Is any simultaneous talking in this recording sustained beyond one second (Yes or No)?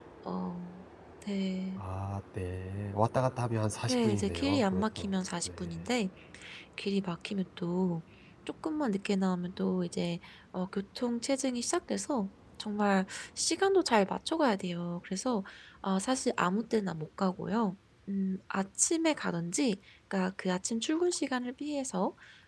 Yes